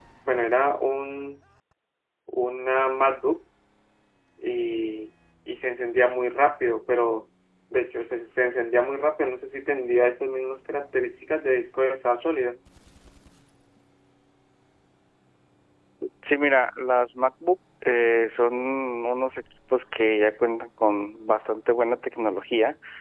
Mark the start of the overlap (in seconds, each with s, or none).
none